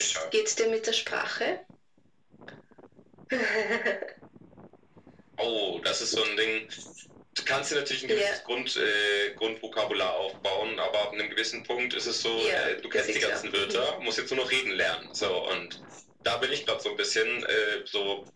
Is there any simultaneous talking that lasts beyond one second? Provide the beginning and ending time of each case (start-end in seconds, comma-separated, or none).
12.4-13.9